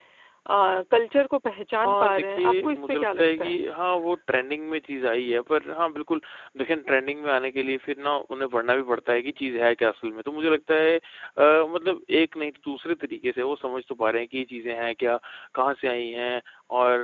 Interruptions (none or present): present